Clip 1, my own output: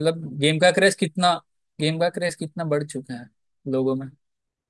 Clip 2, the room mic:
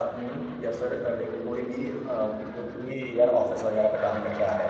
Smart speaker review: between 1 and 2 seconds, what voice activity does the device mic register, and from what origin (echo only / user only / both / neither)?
user only